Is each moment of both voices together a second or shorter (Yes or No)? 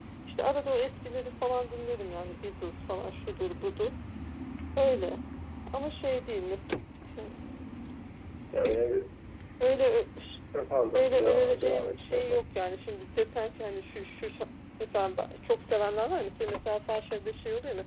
No